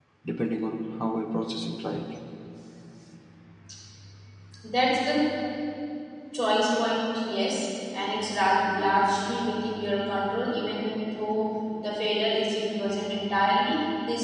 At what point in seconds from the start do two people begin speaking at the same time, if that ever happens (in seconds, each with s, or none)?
none